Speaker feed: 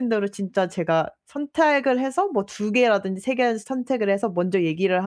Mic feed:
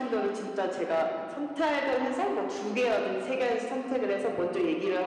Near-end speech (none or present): none